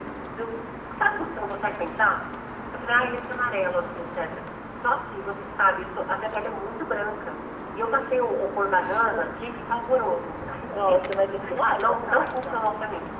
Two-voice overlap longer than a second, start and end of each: 10.7-12.7

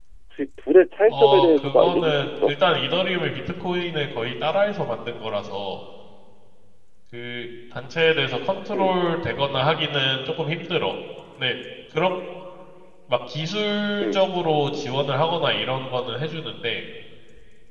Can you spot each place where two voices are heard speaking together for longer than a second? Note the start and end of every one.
1.1-2.5

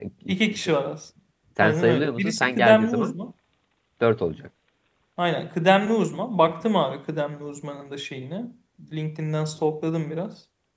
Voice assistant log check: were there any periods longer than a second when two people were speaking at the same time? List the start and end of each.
1.6-3.2

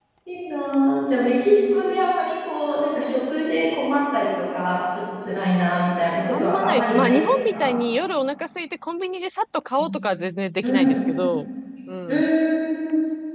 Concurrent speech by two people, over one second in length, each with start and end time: 6.3-7.8

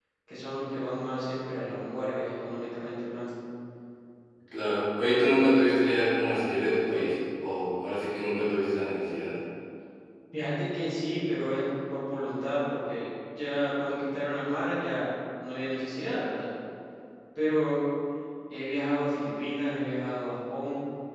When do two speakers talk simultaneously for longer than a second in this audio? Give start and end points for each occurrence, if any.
none

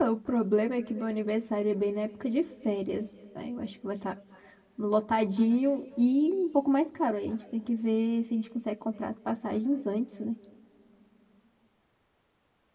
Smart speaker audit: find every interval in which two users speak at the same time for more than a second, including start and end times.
none

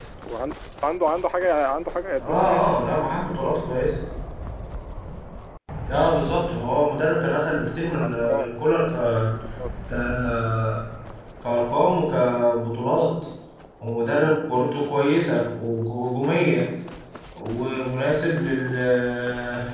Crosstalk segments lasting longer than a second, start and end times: none

